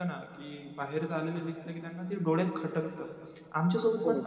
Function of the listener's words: listening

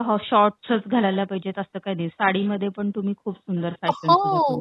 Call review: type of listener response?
taking over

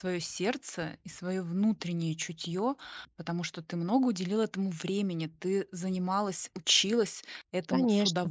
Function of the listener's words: listening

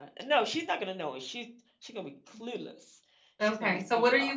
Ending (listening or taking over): taking over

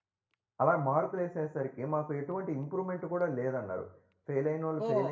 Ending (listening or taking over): taking over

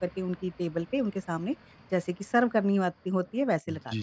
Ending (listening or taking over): taking over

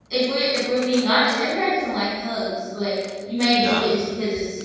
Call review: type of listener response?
listening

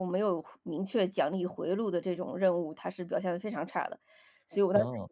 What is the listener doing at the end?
listening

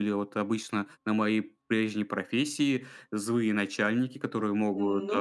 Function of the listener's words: listening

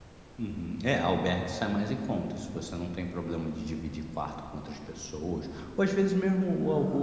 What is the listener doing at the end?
listening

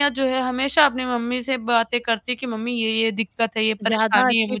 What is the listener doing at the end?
taking over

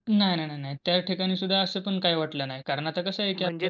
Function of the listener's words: listening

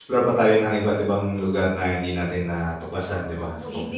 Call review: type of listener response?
taking over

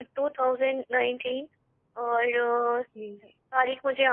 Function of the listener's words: listening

